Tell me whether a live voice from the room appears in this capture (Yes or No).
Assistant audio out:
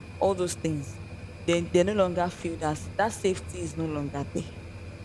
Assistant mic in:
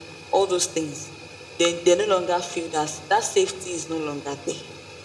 No